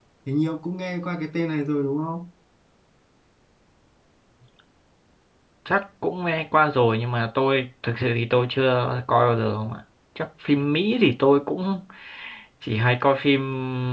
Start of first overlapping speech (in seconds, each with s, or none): none